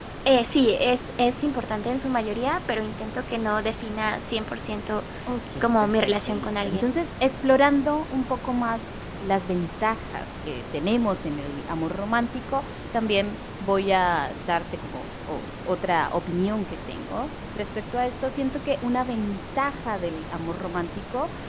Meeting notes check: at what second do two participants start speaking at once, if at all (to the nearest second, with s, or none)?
6 s